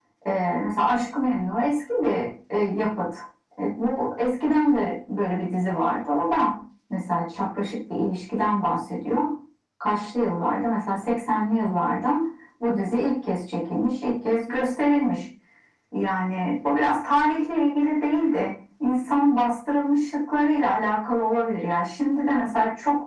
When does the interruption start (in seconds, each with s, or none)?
none